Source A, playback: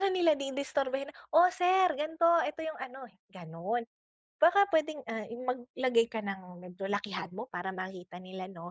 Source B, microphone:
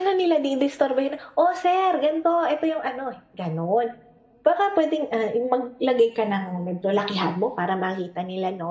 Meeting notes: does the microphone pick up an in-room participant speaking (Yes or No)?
No